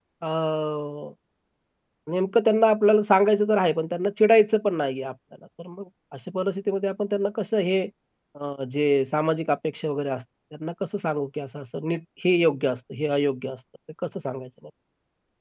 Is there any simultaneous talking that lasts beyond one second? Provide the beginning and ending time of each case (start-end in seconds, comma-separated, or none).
none